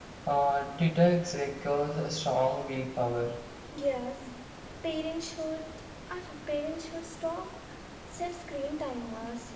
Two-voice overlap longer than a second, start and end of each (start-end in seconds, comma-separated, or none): none